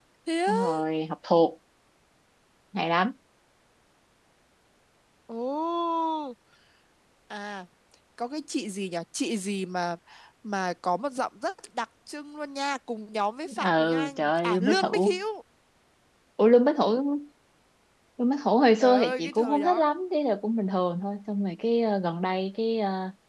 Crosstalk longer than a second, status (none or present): present